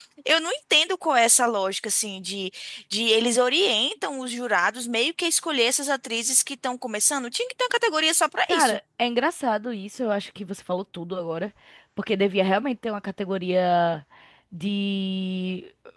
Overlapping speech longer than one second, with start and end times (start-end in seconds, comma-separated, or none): none